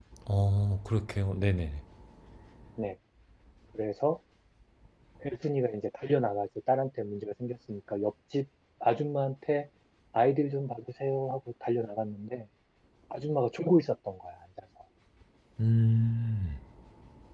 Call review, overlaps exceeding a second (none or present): none